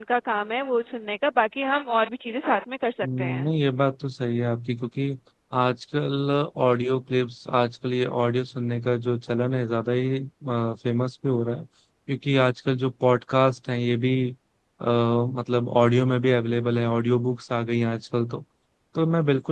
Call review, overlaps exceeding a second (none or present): none